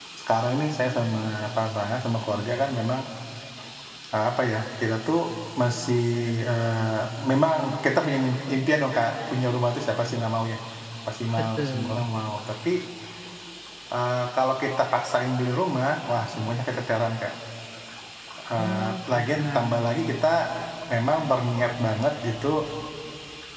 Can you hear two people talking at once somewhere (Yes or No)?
Yes